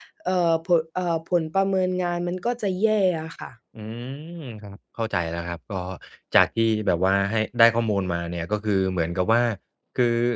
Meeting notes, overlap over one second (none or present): none